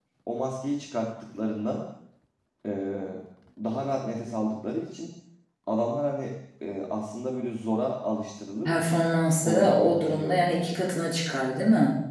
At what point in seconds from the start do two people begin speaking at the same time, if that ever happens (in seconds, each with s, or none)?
9.4 s